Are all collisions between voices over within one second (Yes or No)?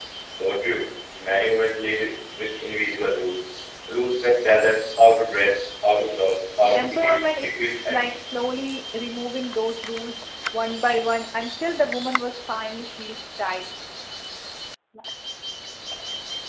No